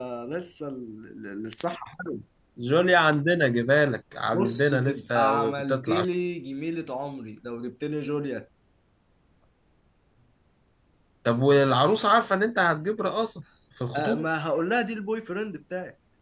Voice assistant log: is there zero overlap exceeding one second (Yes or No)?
No